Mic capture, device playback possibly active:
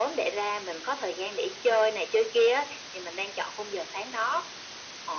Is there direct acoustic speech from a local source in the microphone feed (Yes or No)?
No